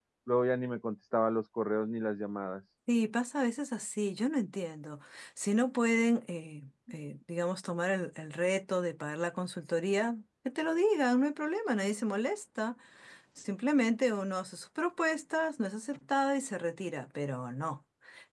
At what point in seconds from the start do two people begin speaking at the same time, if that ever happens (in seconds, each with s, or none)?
none